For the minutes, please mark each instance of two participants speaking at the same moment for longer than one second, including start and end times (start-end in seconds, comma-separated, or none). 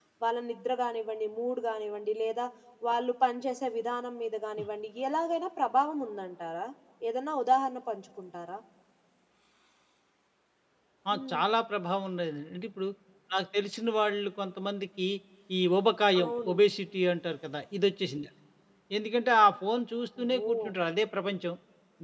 none